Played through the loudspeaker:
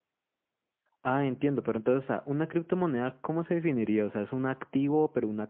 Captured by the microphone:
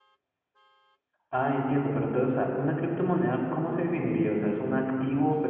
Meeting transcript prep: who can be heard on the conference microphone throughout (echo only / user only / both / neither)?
echo only